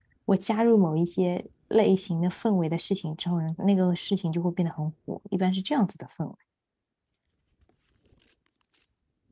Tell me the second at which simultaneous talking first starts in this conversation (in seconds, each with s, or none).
none